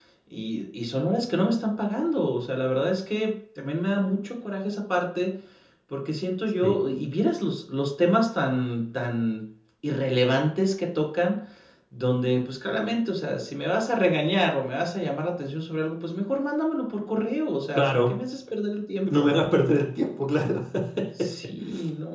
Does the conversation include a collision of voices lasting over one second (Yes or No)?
No